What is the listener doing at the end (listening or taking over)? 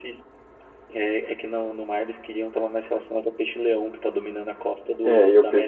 taking over